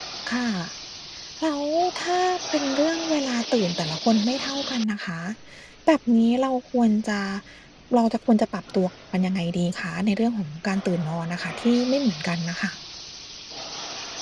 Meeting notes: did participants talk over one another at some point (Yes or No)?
No